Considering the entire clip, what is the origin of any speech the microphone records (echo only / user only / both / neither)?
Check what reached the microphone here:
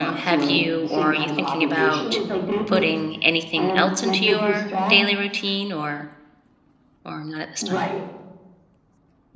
both